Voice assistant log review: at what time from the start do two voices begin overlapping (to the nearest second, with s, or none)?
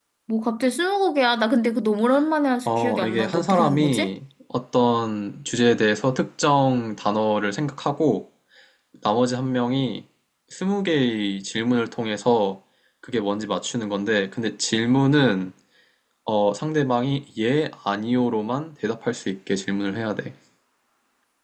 3 s